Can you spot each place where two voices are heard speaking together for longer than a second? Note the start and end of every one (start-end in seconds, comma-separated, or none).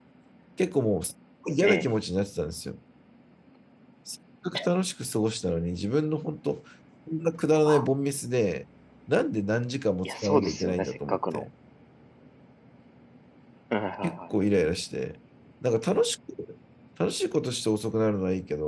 10.0-11.4